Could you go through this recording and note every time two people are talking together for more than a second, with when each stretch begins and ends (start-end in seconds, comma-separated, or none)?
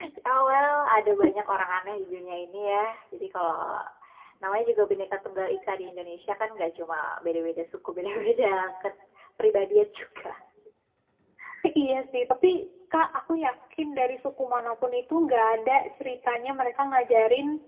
none